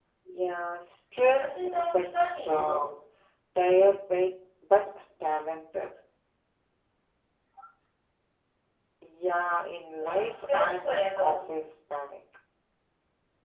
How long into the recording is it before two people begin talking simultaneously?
1.4 s

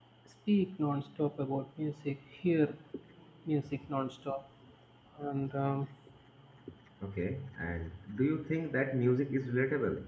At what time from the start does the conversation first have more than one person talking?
none

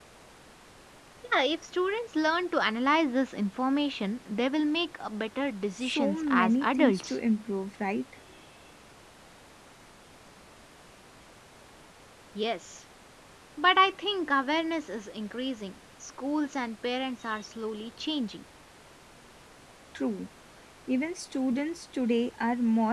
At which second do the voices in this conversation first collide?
5.8 s

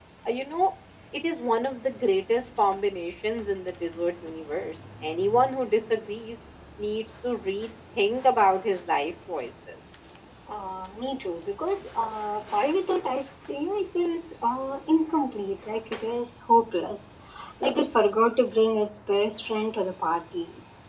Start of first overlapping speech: none

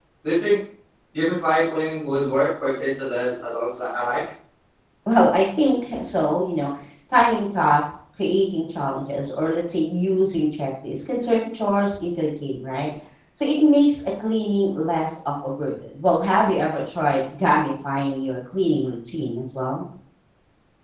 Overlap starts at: none

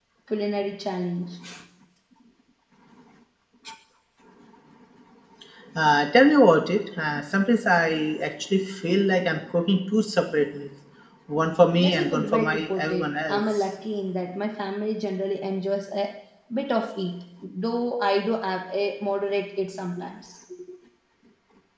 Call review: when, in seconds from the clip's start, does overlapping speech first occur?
11.8 s

